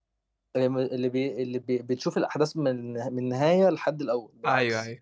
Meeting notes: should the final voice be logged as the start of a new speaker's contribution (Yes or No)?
Yes